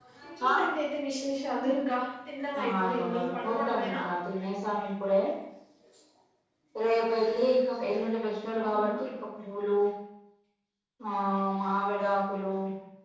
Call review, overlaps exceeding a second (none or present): present